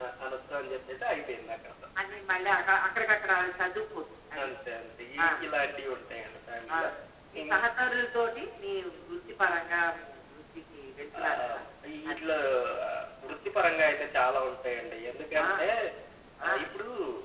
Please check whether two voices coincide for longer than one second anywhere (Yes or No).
No